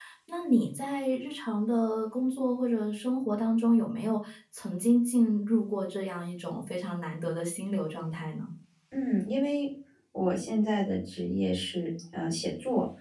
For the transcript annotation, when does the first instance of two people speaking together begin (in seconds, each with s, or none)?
none